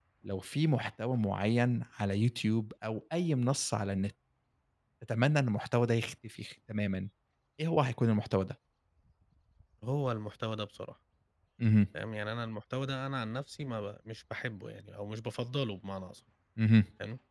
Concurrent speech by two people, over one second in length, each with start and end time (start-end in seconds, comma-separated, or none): none